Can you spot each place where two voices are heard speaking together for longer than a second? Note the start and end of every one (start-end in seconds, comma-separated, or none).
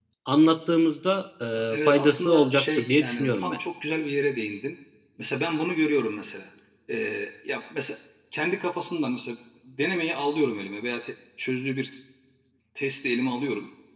1.9-3.6